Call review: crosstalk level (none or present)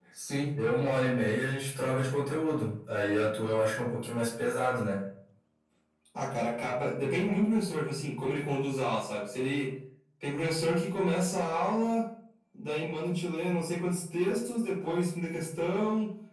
none